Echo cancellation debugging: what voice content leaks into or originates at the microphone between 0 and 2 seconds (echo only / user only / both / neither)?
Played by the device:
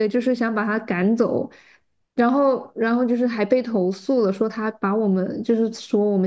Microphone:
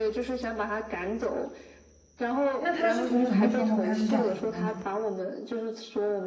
echo only